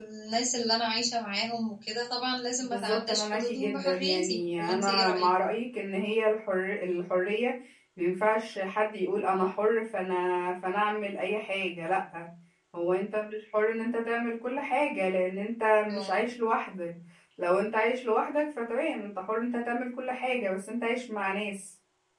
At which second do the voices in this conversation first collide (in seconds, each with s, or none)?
2.7 s